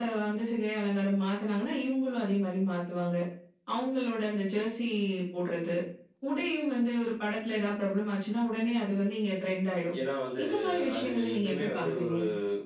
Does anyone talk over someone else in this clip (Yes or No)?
Yes